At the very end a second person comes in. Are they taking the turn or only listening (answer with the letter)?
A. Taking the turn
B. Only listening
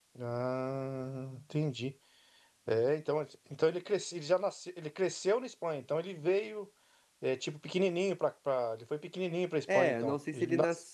A